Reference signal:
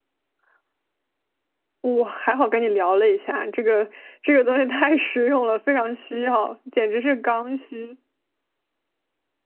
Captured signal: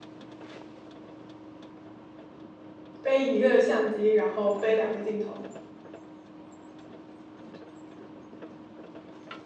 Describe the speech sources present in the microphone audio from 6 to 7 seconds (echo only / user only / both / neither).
neither